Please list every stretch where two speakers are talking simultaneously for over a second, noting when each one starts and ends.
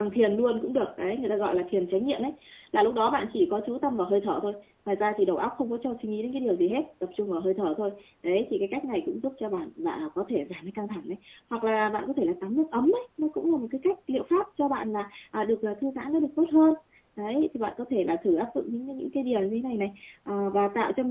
none

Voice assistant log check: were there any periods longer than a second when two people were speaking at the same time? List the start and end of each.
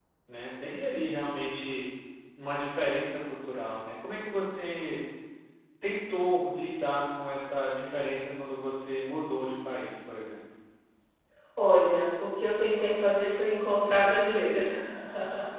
none

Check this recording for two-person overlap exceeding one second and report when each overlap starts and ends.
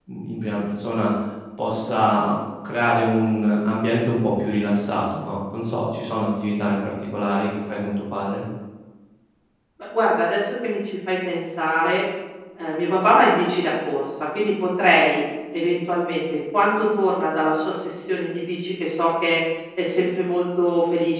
none

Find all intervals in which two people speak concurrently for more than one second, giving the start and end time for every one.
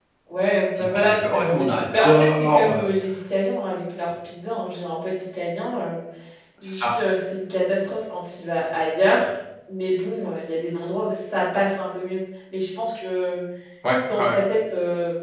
0.8-2.9

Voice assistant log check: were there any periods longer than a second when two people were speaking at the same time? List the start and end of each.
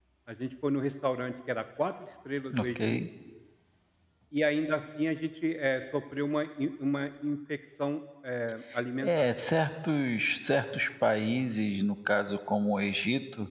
none

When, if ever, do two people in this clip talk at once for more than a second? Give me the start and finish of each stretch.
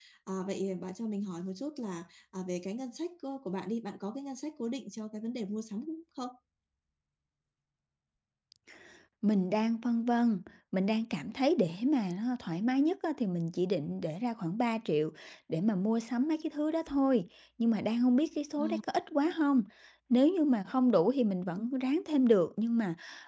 none

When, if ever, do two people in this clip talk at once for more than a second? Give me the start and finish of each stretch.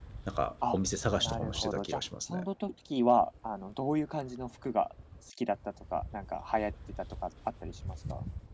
1.2-2.4

